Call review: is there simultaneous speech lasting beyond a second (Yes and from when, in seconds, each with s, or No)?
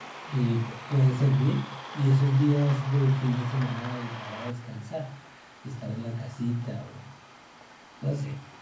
No